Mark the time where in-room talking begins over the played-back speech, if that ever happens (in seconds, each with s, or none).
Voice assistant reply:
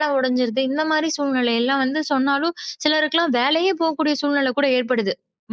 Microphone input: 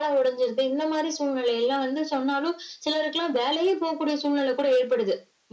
none